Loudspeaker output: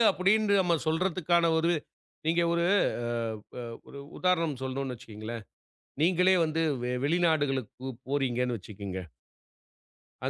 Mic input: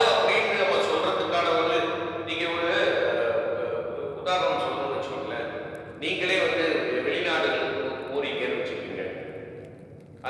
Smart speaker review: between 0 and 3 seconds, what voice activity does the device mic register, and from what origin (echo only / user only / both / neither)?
echo only